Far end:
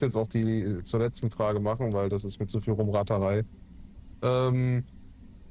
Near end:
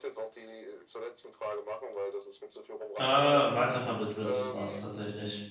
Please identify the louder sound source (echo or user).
user